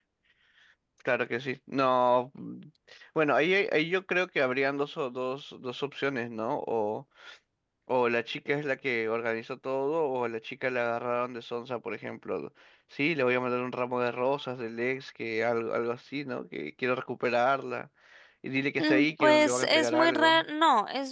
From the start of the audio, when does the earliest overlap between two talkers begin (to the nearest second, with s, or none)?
19 s